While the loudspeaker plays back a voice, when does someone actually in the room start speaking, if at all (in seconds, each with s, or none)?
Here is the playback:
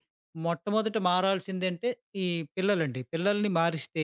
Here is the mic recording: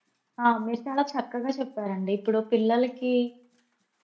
0.4 s